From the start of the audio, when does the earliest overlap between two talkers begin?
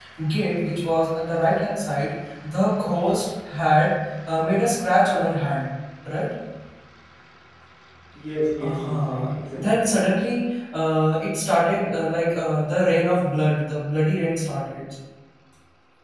8.6 s

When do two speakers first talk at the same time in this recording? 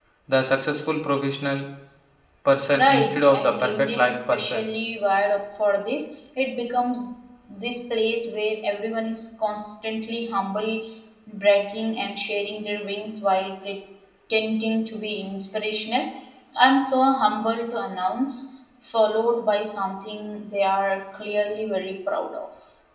2.7 s

